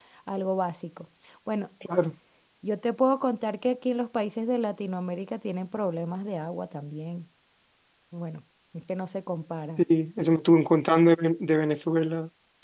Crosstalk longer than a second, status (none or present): none